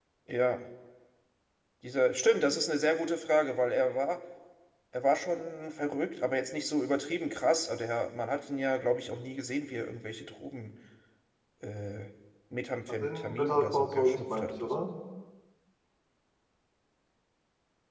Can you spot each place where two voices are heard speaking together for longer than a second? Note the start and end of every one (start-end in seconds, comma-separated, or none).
13.0-14.8